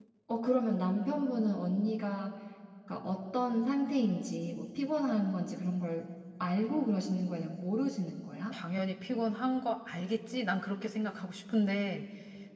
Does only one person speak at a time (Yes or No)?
Yes